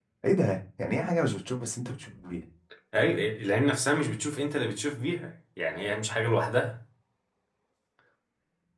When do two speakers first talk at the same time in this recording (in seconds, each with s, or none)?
none